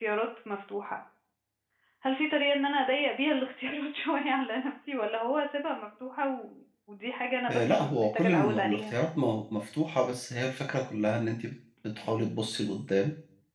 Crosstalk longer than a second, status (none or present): present